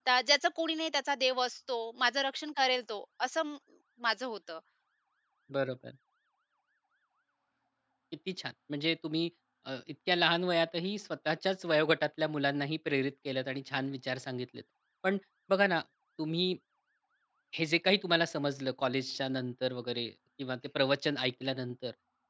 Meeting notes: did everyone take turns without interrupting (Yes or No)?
Yes